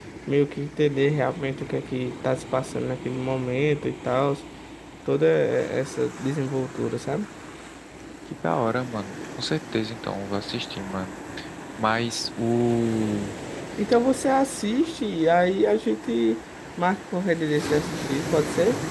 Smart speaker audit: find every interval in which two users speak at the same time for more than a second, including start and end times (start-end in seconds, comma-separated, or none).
none